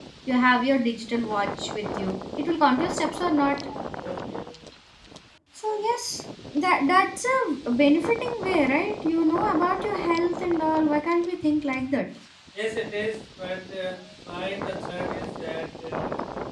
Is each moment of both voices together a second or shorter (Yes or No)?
Yes